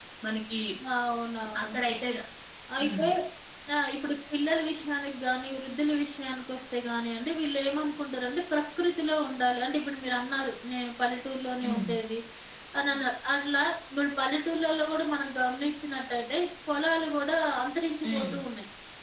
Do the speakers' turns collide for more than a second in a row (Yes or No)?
No